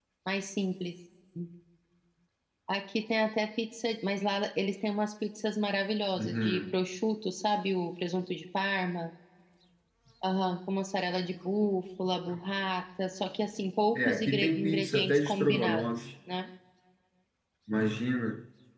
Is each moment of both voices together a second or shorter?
No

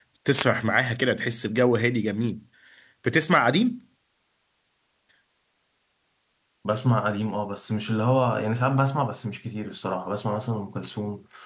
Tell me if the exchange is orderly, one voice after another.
Yes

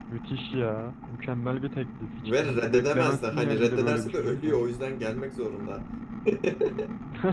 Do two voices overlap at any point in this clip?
Yes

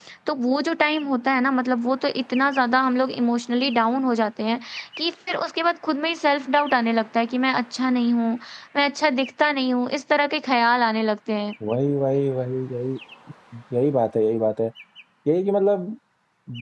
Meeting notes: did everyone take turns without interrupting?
Yes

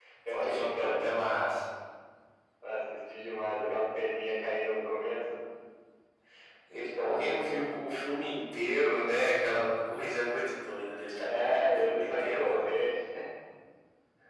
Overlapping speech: Yes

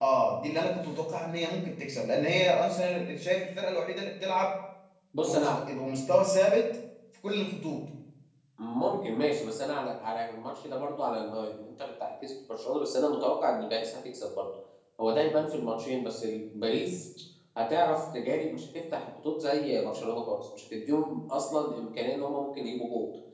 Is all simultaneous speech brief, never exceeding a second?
Yes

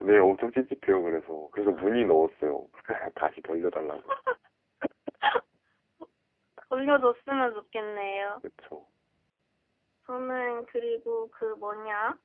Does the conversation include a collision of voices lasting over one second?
No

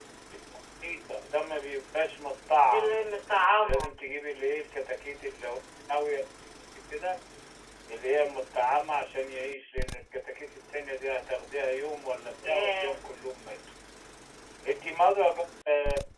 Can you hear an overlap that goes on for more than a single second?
No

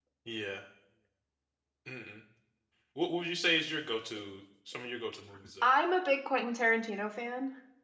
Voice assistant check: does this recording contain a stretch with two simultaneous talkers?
No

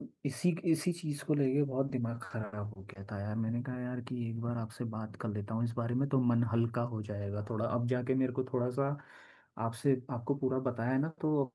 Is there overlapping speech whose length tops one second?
No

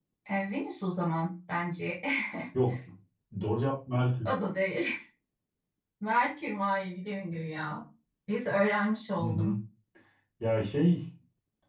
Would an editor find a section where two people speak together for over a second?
No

